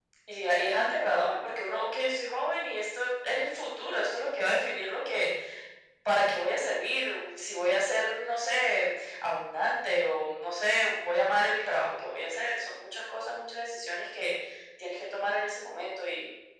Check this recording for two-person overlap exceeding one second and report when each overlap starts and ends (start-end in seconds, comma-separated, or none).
none